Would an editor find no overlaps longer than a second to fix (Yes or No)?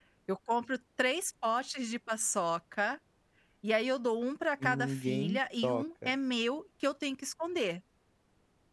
No